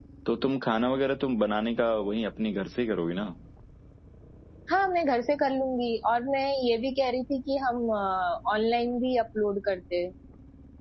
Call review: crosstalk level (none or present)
none